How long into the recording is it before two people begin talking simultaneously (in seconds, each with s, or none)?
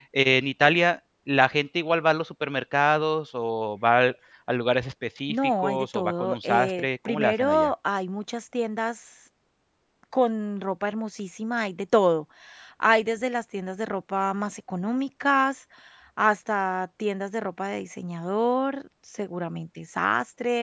5.3 s